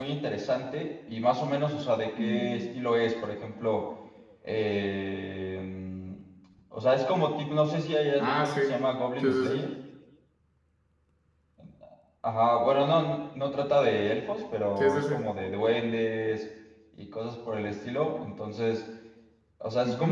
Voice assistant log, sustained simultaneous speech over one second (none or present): none